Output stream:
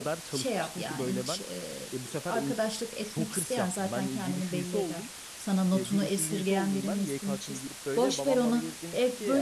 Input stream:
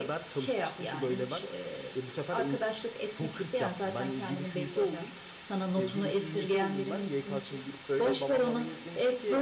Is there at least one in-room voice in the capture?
No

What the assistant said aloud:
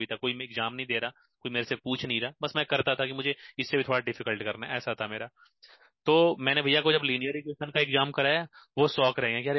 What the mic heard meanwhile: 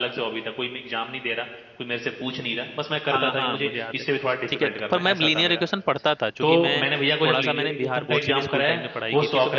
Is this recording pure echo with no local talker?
No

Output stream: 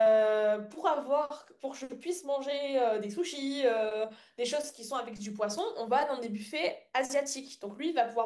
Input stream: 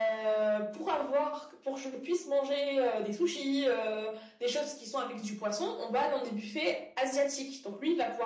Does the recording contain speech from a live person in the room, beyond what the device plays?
No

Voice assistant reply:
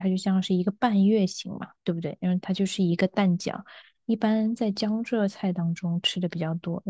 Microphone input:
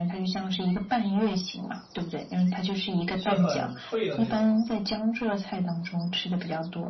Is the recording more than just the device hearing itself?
Yes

